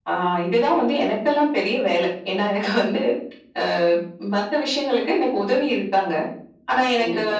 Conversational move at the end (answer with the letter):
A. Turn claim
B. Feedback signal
B